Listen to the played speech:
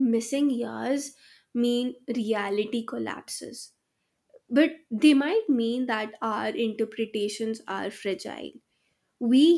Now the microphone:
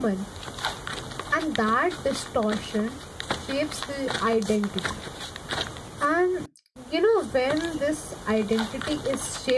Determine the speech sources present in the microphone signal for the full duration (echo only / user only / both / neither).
user only